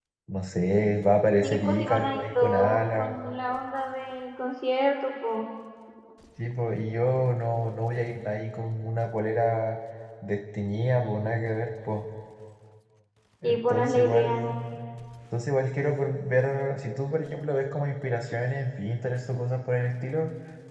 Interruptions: present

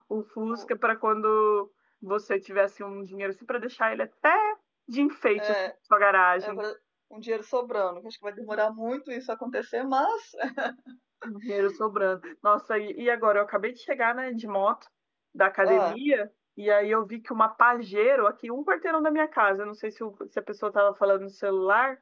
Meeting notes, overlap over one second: none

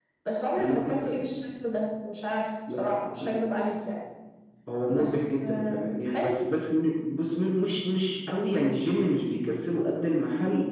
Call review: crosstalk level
present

